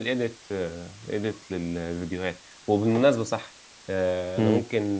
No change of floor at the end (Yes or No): Yes